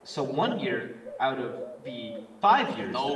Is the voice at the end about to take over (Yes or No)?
Yes